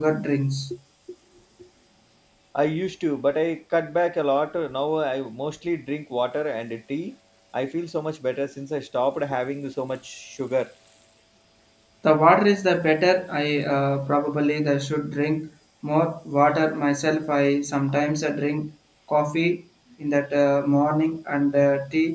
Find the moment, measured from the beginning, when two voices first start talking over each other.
none

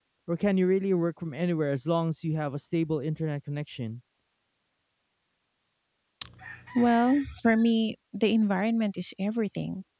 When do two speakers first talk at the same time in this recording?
none

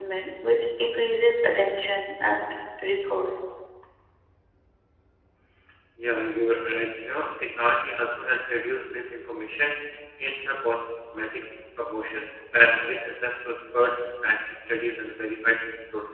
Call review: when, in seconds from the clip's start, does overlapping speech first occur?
none

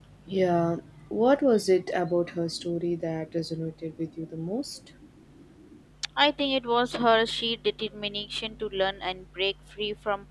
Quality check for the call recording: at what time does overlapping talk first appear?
none

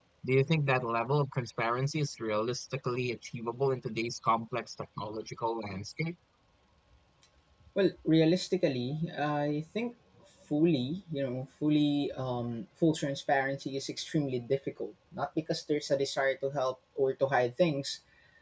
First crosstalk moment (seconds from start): none

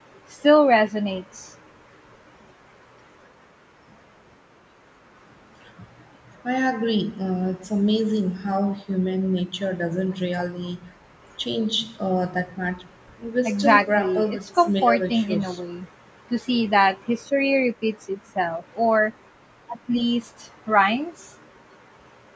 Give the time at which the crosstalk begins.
13.4 s

